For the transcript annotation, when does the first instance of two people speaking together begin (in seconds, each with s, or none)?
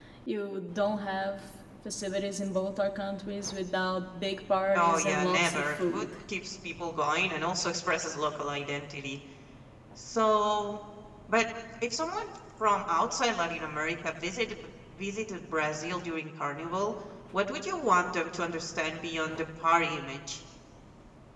4.7 s